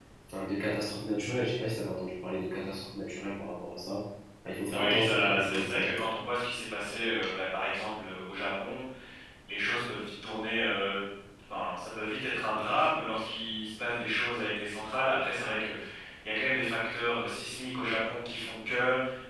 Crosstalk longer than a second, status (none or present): present